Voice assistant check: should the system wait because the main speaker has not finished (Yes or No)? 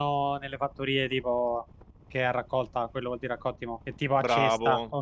No